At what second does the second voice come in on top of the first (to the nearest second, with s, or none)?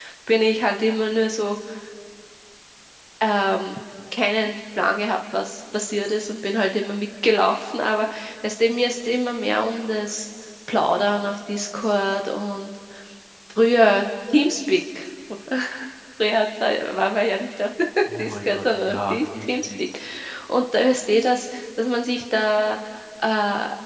18 s